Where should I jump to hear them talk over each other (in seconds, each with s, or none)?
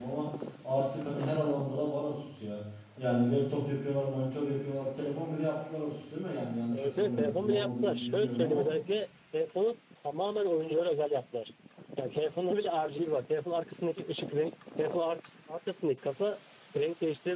6.7 s